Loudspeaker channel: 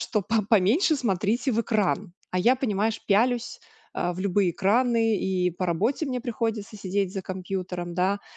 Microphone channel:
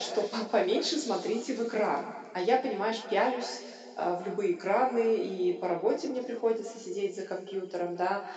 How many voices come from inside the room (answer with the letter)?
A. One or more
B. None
B